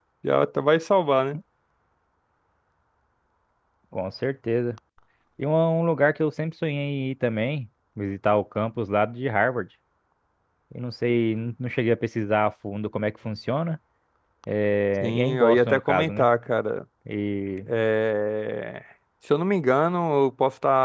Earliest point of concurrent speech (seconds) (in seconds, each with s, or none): 15.0 s